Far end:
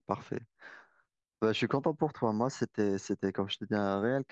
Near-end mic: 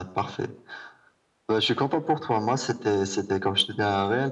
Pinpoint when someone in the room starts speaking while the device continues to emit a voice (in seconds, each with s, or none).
none